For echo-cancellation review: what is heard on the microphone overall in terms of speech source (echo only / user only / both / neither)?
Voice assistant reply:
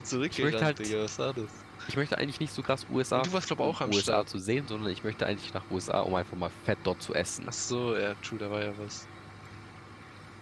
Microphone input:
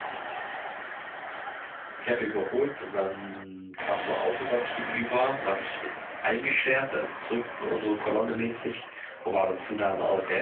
user only